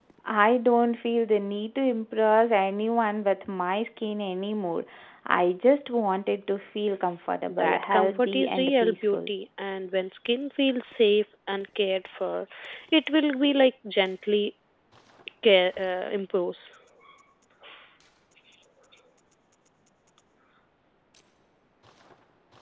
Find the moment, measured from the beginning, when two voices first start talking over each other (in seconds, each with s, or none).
7.5 s